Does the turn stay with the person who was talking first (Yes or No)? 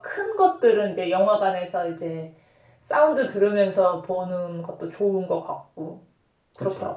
No